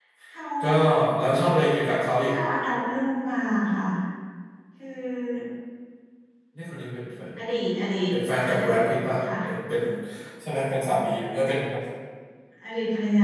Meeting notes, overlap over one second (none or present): none